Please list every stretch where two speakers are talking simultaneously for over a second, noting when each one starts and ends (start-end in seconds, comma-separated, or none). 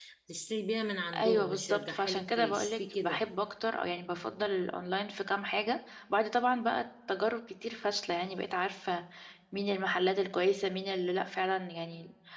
1.2-3.2